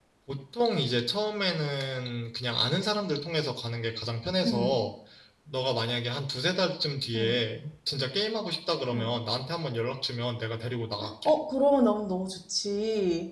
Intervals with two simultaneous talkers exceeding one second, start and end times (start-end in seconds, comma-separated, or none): none